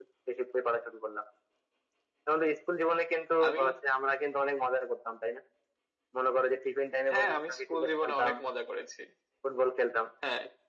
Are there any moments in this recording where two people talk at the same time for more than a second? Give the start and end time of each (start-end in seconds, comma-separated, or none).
7.1-8.3